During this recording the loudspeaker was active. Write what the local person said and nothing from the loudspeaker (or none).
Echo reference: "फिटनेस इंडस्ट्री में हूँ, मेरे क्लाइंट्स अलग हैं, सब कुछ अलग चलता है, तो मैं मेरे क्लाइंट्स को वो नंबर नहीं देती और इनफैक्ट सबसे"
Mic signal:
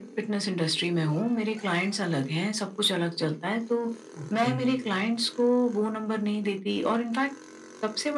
ओके।